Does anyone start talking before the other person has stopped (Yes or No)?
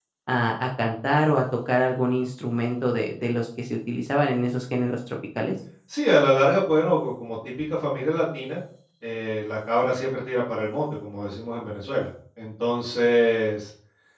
No